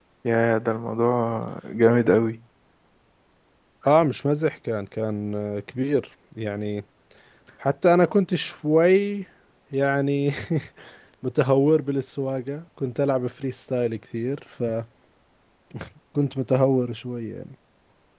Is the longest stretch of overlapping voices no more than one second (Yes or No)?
Yes